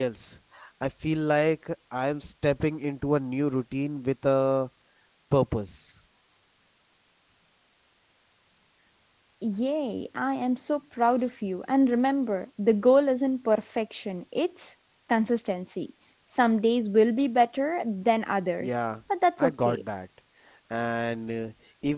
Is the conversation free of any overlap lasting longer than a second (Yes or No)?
Yes